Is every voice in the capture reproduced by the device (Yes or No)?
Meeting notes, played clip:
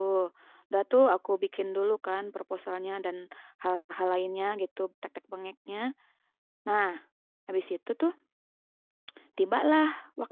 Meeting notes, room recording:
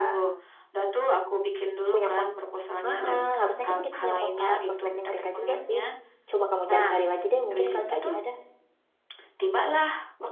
No